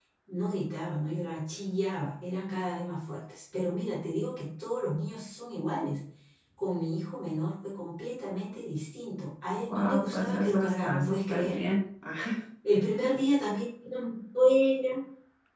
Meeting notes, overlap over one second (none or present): present